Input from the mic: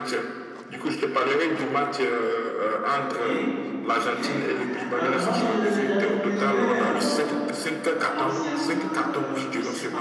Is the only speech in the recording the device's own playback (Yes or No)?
No